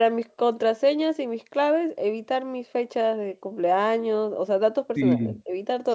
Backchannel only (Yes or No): No